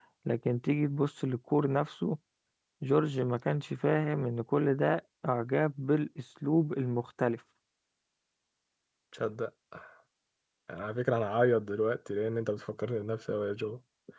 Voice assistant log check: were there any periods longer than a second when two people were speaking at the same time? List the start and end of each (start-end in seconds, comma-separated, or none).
none